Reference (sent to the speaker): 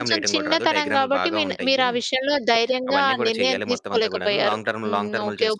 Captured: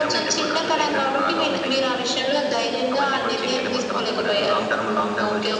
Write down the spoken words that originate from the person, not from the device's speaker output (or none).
none